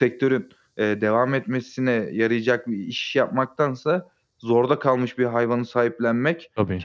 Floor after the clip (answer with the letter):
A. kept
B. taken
A